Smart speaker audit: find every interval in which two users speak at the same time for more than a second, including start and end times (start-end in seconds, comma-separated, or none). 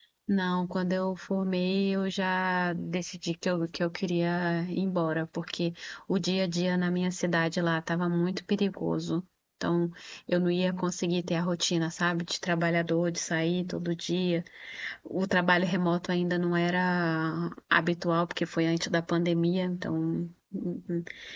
none